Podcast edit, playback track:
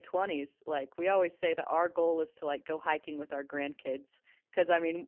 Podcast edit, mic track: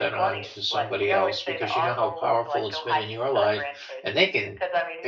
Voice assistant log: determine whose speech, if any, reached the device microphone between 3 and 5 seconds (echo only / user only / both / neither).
both